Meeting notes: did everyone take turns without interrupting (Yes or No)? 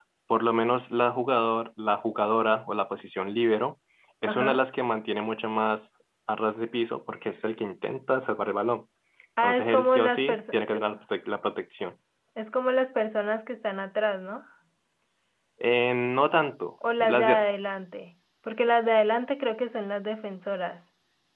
No